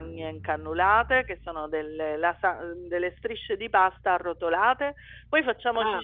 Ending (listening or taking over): listening